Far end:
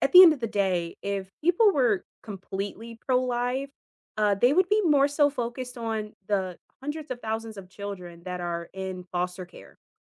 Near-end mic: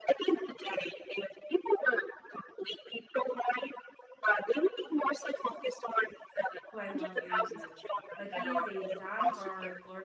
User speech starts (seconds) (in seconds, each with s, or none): 6.7 s